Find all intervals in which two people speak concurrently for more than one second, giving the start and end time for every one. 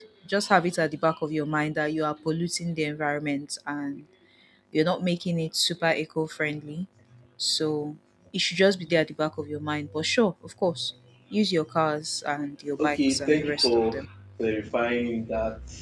12.8-14.1

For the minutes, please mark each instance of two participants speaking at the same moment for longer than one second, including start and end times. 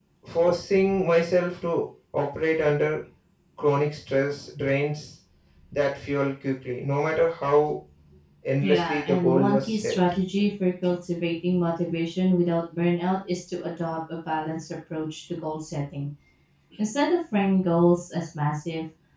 8.6-9.9

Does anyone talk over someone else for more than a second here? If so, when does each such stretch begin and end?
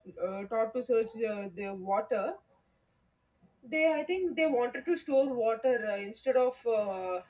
none

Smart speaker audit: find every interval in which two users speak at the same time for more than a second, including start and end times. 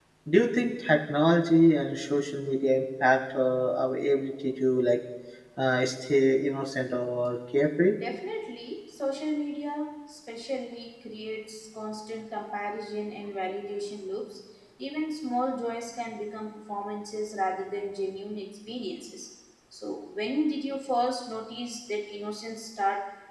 none

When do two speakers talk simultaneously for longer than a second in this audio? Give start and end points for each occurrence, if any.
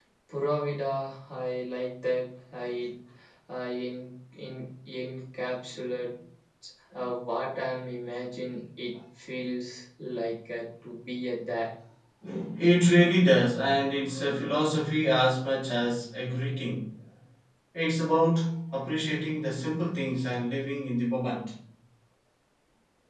none

